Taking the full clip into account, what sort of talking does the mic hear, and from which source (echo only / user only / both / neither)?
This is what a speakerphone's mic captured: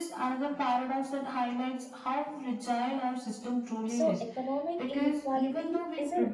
both